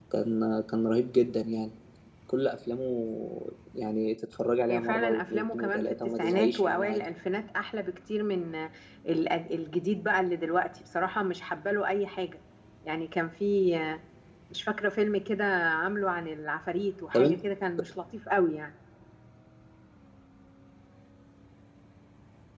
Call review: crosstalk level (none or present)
present